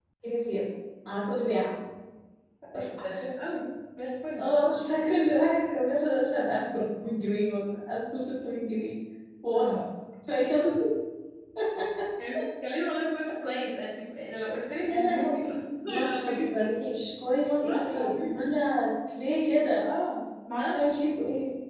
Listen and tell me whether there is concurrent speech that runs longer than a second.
Yes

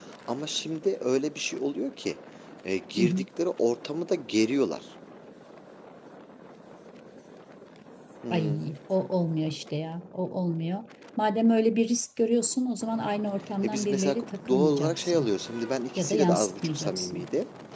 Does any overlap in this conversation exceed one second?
Yes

